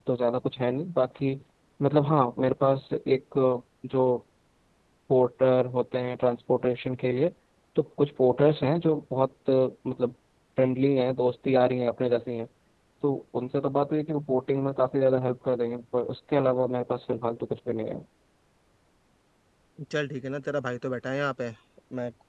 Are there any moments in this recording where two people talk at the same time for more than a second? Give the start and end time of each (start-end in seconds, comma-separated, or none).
none